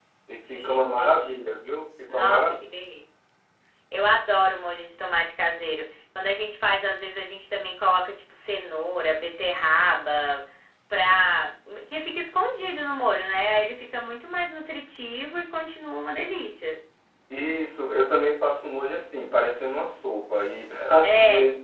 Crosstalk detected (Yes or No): Yes